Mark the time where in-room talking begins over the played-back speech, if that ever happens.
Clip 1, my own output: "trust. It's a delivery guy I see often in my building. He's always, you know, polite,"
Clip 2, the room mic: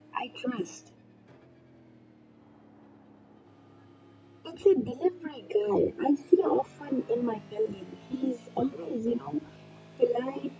none

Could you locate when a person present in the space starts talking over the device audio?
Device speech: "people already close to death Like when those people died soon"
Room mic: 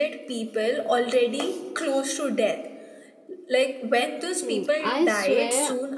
4 s

